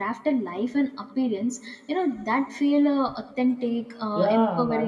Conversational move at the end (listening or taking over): taking over